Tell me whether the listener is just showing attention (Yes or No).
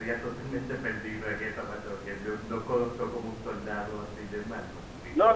No